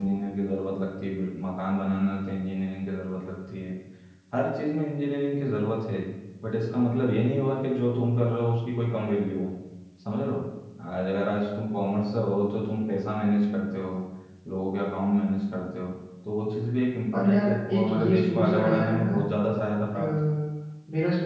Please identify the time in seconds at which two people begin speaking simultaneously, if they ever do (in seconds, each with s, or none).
17.1 s